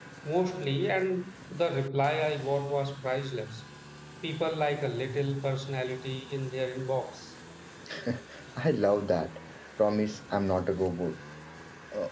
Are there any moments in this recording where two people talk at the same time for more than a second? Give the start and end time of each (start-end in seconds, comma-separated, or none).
none